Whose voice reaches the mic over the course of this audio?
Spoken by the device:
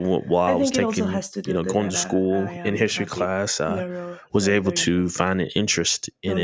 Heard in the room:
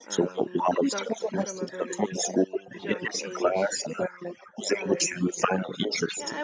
both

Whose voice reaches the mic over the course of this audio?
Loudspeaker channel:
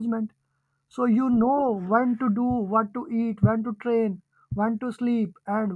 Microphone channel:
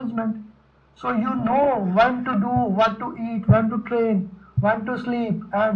echo only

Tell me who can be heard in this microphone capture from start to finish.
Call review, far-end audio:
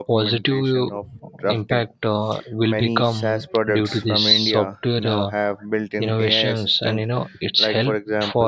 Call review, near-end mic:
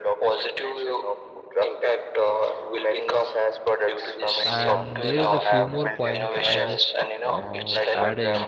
both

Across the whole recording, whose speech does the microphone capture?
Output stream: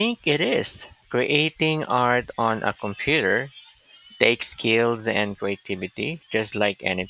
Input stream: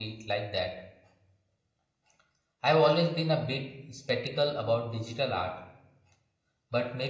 user only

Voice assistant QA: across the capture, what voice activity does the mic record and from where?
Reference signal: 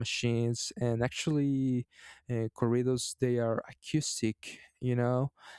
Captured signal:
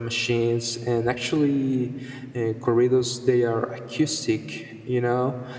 echo only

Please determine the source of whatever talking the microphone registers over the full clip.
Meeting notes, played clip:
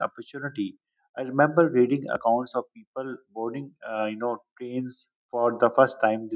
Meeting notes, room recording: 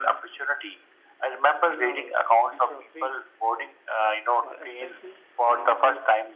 both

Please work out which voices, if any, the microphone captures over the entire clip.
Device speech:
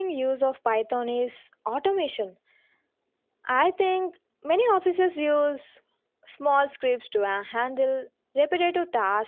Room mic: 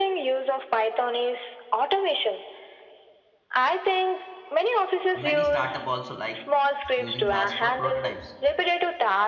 both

